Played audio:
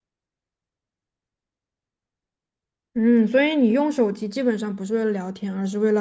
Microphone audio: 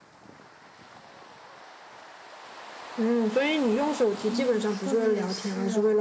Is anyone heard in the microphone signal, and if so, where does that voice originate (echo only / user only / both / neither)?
both